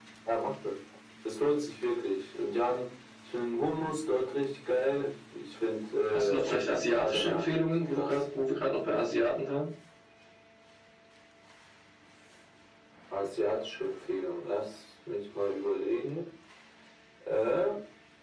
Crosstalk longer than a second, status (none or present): present